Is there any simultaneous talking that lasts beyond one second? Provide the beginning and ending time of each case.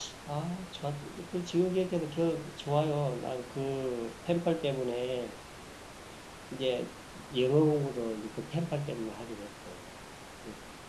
none

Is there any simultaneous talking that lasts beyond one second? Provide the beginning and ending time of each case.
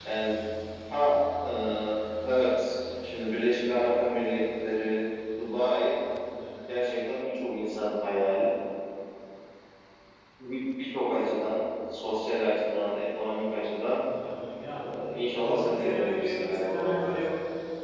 15.4-17.1

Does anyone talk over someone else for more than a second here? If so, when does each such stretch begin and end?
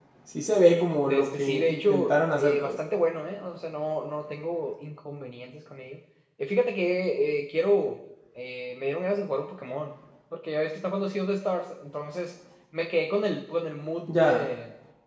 1.1-2.7

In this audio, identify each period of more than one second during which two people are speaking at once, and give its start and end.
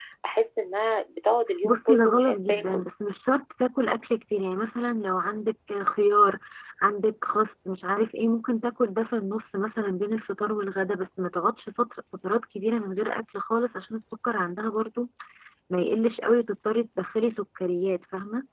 1.6-2.8

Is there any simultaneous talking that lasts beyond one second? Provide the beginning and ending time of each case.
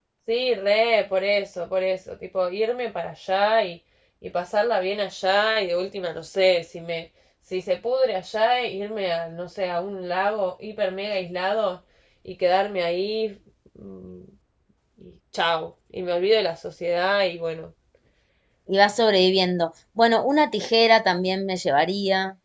none

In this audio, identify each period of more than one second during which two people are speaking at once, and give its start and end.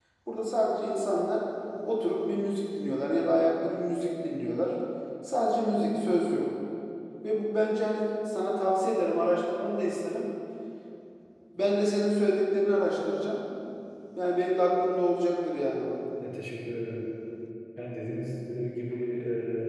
none

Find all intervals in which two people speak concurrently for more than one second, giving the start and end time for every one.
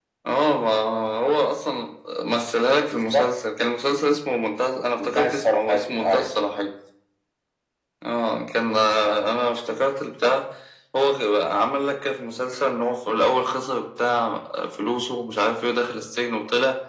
5.0-6.3

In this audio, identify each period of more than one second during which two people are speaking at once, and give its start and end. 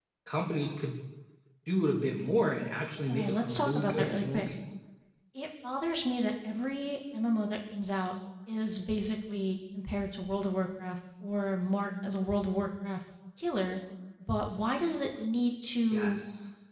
3.1-4.5

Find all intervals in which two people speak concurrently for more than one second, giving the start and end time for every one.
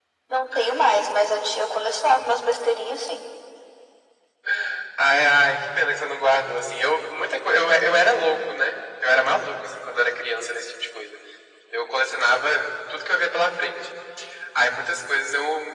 none

